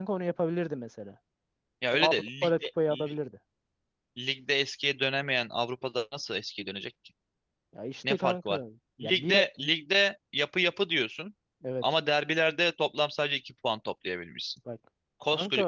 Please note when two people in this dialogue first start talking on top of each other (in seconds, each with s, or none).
1.9 s